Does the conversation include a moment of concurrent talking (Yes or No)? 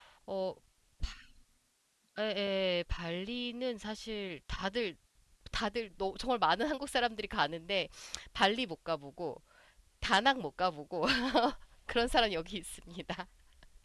No